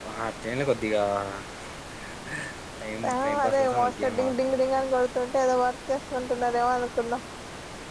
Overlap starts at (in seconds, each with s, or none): 3.2 s